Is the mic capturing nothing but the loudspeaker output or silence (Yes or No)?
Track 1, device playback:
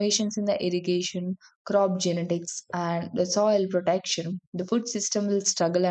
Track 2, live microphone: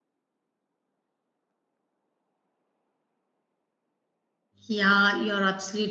No